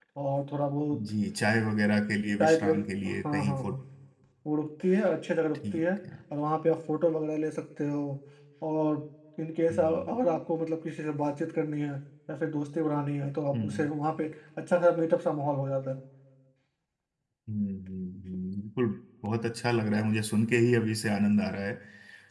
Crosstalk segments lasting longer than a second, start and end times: 2.4-3.8

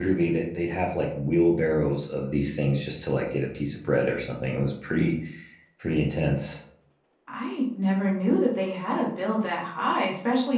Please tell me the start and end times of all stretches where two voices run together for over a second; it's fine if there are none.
none

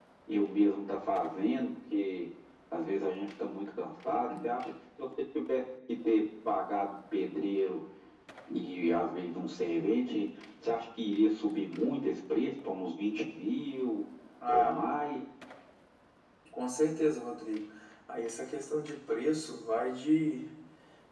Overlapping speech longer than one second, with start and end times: none

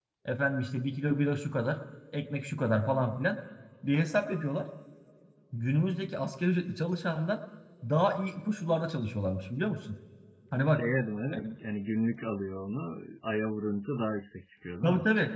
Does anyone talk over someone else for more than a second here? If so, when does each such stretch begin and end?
none

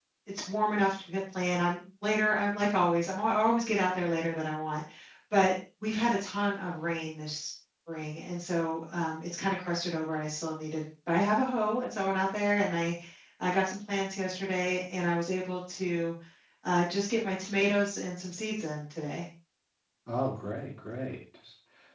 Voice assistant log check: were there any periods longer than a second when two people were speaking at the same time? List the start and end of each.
none

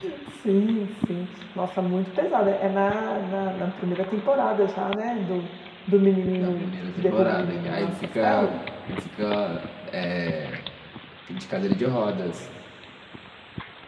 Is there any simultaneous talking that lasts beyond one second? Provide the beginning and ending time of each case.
6.4-8.5

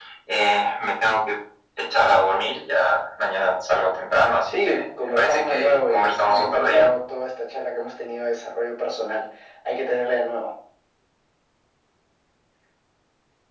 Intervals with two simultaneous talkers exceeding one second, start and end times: 4.5-6.9

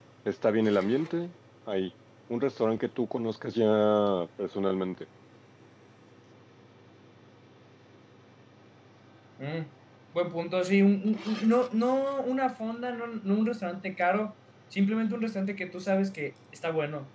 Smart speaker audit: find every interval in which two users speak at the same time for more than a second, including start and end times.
none

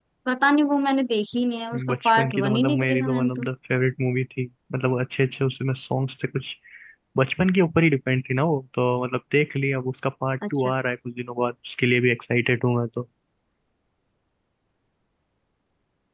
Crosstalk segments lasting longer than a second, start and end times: 1.9-3.5

